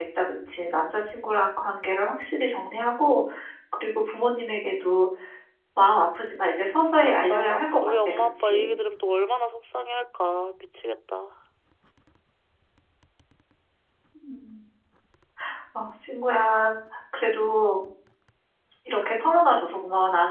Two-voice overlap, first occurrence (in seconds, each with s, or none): 7.0 s